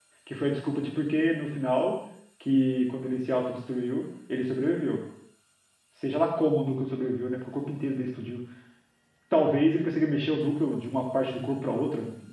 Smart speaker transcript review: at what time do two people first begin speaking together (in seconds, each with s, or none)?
none